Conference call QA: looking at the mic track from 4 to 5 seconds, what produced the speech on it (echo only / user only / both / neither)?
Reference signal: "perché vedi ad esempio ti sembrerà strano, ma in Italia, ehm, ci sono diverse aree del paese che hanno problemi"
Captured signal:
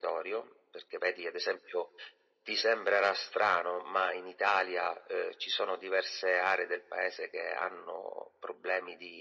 echo only